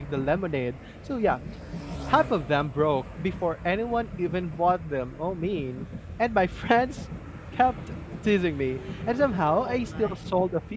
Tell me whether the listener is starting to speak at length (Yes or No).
No